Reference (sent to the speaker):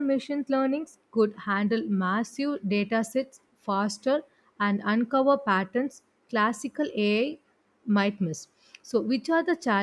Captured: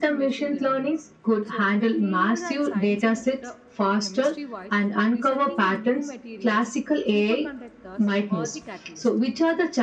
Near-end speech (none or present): present